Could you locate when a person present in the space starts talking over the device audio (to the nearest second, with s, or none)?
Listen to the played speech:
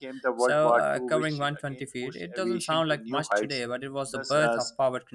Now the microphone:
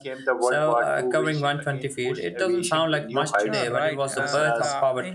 3 s